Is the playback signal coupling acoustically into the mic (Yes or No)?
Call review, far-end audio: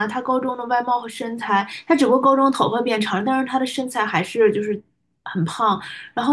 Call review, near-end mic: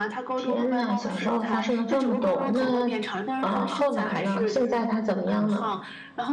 Yes